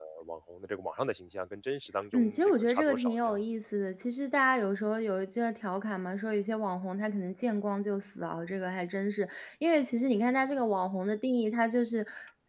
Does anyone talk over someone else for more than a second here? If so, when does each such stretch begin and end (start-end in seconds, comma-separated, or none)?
2.1-3.4